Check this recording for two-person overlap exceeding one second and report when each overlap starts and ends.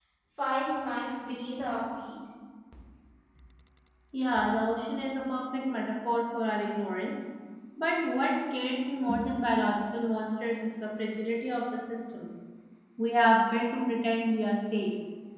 none

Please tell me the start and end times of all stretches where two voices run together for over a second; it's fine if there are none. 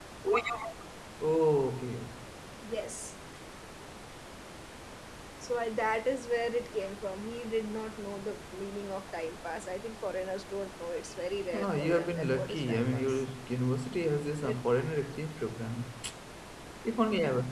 11.5-13.2

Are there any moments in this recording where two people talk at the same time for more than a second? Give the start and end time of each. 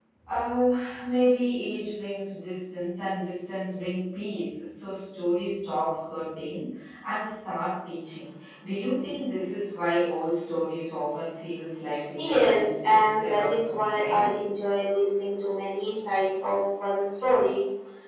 12.2-14.4

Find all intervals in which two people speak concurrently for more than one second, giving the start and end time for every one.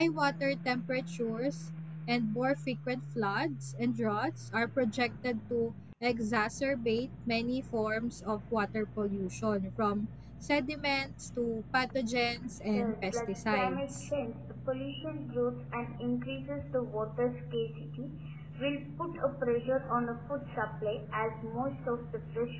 12.7-14.1

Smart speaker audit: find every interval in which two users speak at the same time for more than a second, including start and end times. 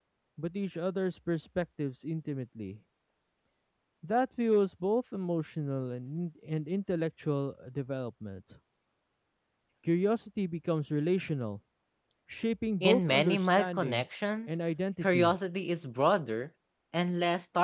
12.8-14.1

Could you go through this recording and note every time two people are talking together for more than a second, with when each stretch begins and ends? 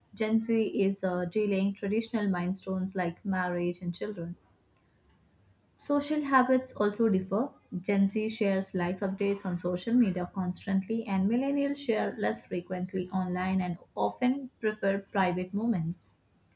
none

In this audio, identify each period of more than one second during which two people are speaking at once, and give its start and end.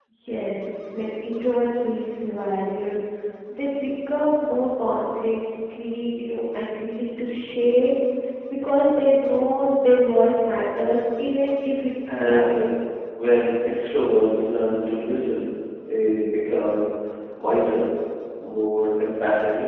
none

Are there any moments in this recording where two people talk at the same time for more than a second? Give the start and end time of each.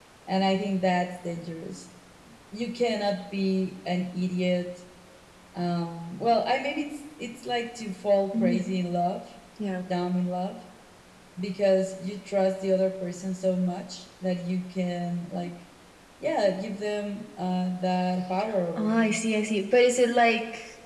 none

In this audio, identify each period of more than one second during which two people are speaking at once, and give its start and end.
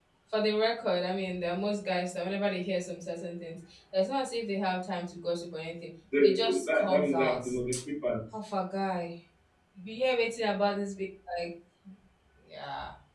6.2-7.4

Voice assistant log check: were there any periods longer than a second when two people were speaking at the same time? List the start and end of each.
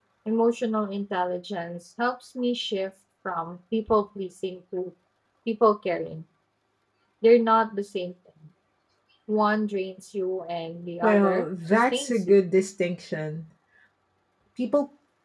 11.0-12.3

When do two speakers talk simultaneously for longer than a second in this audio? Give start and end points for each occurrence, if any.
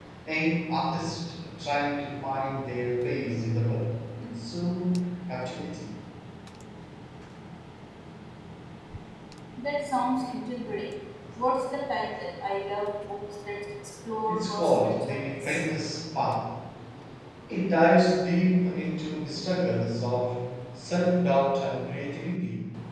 14.3-15.6

